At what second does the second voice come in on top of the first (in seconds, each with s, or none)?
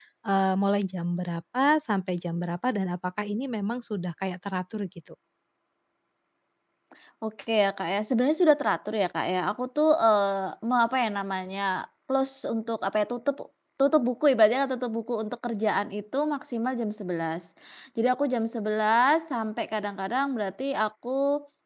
none